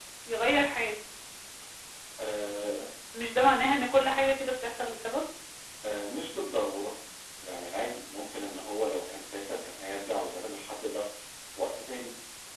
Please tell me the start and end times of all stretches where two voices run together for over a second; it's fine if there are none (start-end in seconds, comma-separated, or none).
none